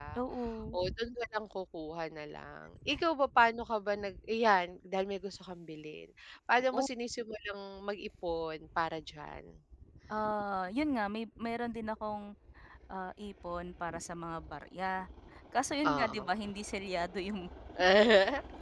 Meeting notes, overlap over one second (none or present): none